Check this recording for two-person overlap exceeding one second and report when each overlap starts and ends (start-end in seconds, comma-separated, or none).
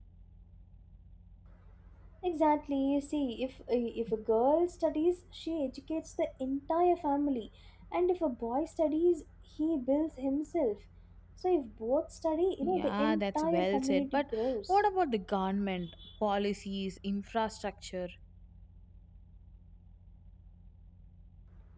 12.6-14.8